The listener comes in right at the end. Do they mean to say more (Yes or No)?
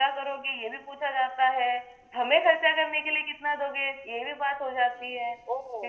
Yes